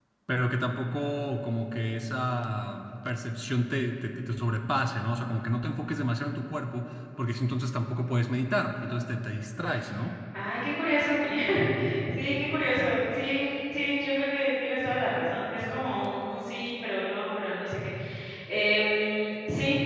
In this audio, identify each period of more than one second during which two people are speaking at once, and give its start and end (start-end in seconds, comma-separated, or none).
none